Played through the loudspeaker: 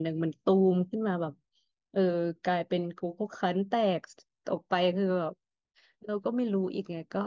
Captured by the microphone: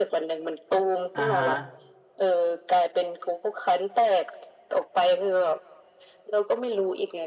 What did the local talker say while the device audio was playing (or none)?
อ่าฮะ